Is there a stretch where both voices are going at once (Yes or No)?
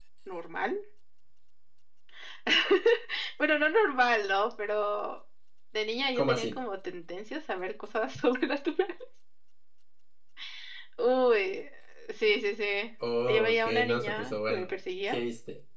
Yes